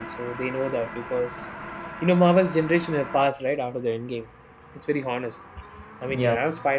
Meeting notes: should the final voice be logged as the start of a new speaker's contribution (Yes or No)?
No